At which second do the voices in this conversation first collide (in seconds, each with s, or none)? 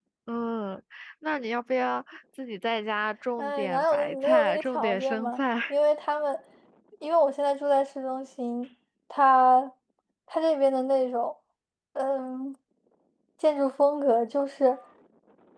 3.4 s